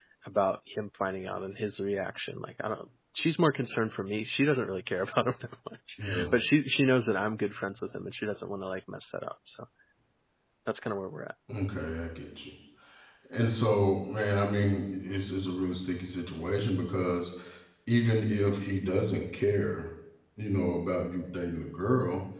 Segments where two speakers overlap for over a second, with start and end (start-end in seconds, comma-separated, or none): none